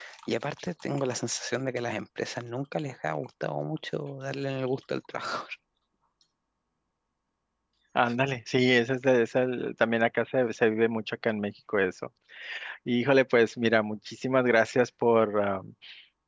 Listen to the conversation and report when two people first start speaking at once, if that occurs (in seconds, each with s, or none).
none